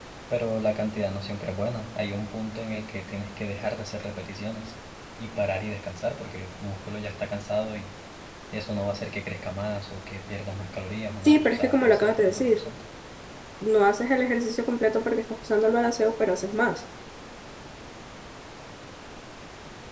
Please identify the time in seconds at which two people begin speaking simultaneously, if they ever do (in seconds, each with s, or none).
11.2 s